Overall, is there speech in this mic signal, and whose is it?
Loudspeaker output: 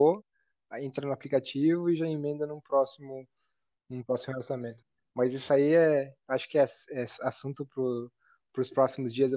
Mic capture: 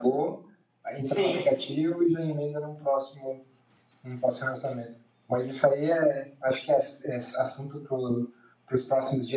both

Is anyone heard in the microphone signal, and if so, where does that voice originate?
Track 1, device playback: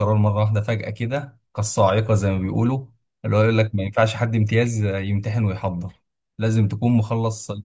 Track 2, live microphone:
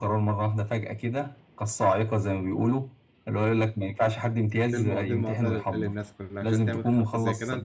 both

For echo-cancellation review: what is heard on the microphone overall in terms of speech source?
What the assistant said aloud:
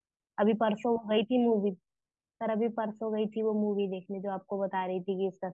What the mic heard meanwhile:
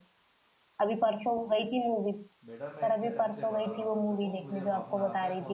both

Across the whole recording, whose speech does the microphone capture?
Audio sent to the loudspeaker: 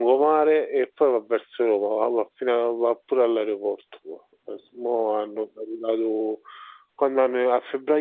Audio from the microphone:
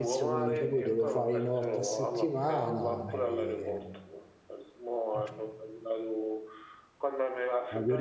both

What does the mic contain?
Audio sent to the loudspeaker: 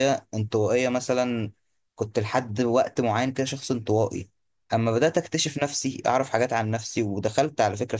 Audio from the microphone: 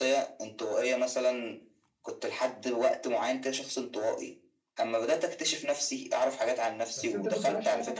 both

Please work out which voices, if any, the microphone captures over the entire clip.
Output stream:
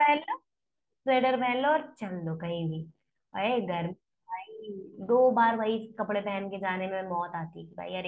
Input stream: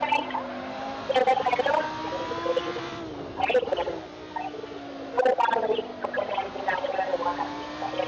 echo only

